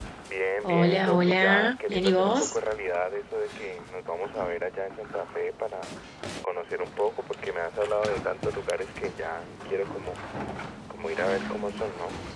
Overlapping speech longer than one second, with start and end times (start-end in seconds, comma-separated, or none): 0.6-2.5